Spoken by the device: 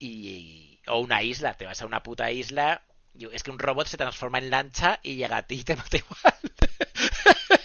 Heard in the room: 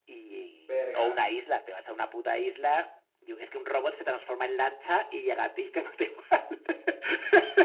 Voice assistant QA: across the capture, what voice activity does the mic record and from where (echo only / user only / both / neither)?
both